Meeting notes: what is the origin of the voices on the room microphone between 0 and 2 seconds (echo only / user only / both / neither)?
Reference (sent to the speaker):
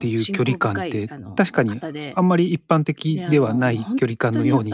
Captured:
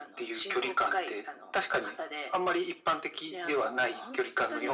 echo only